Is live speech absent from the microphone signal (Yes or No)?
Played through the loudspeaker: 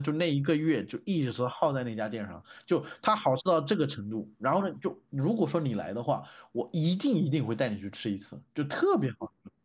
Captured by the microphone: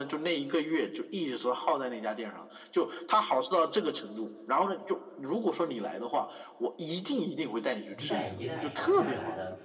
No